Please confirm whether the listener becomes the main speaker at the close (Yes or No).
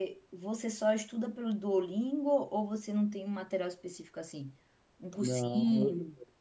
Yes